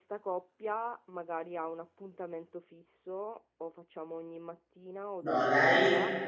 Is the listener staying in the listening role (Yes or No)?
No